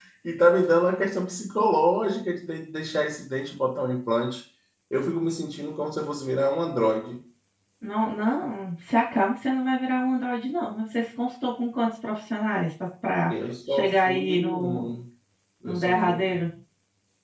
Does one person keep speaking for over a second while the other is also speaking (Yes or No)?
Yes